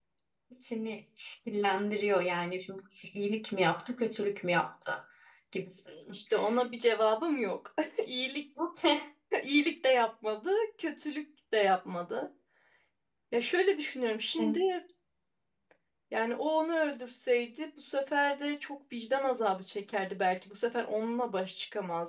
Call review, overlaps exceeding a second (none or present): none